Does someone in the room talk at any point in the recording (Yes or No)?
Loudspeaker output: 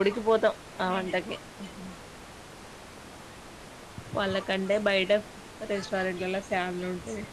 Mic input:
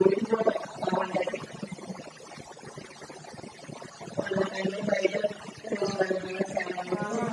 Yes